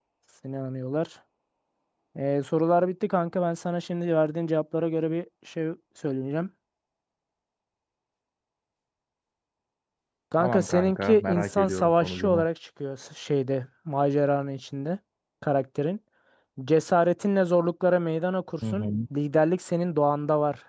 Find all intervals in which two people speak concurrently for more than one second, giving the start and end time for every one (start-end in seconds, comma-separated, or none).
10.4-12.5